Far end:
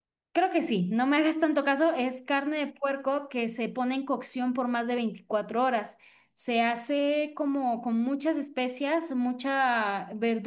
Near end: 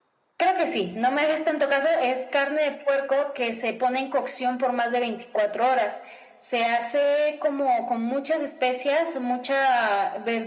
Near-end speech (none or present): none